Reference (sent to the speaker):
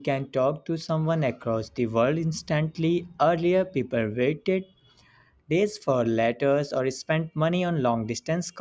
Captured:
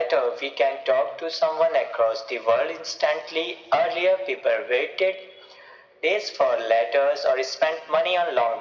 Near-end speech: none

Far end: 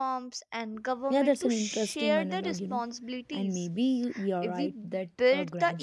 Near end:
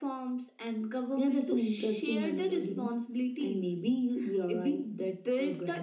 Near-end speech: none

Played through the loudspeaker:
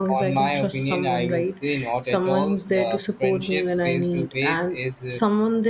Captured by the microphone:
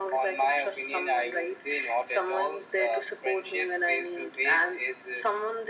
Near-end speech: none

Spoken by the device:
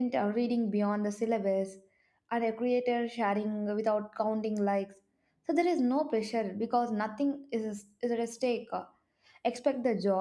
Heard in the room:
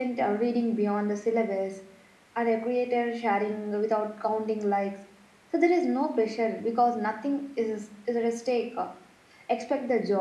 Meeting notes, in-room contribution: none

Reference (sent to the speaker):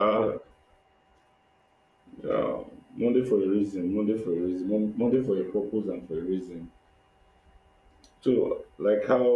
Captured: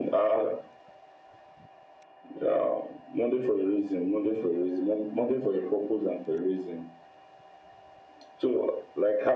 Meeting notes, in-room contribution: none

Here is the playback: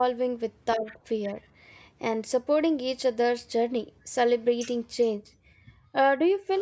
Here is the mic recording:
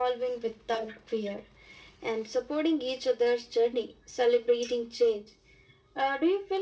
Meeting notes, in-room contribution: none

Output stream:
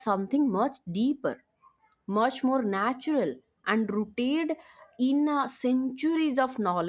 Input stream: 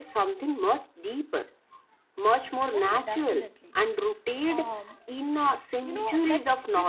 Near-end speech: present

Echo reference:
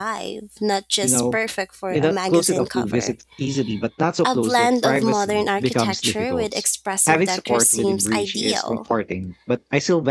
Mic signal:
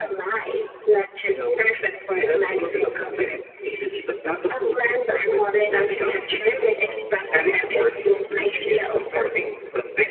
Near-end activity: present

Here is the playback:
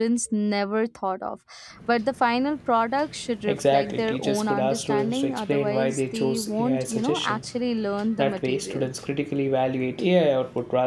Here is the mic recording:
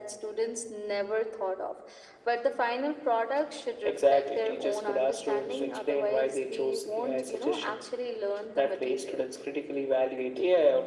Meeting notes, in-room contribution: none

